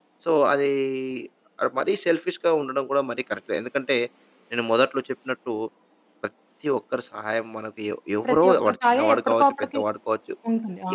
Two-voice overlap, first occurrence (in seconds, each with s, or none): 8.2 s